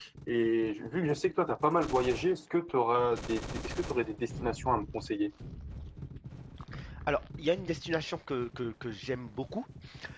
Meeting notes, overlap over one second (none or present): none